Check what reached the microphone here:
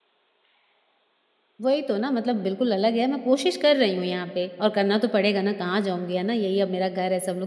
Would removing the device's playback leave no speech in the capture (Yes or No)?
No